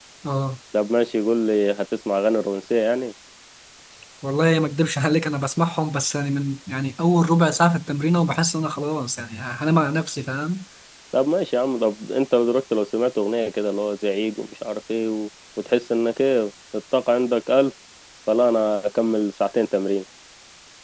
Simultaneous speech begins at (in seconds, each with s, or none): none